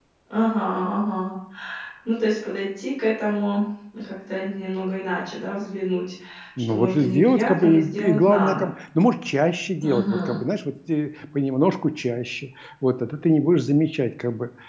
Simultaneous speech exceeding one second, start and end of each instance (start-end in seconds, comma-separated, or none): 6.7-8.7